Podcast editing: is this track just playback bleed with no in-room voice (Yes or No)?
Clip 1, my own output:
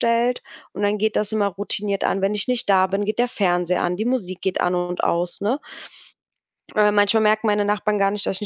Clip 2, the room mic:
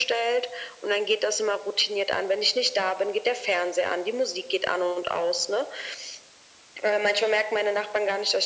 Yes